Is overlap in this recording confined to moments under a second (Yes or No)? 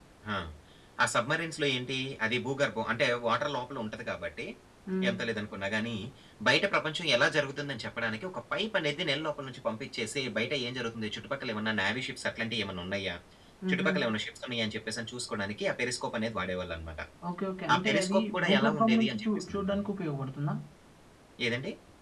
No